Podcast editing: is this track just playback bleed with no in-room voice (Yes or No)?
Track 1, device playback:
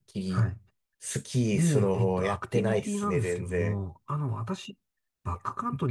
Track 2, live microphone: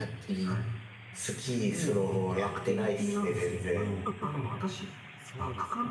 No